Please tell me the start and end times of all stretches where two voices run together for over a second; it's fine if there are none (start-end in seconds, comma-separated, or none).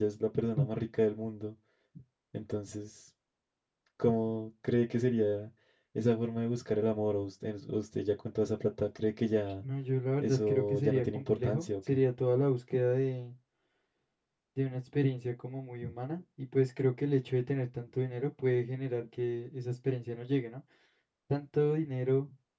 10.2-12.0